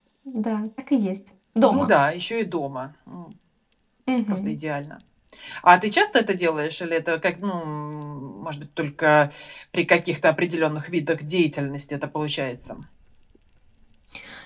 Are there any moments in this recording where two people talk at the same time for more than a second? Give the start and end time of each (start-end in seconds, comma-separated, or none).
none